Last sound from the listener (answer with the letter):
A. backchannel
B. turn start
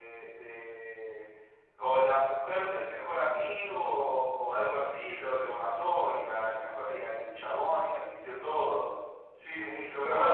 B